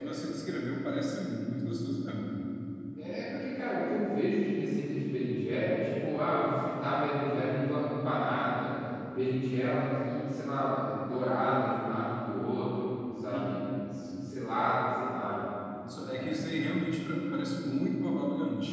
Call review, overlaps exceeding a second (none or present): none